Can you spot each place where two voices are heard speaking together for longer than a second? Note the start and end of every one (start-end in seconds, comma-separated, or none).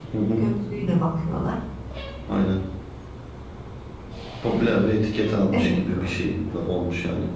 none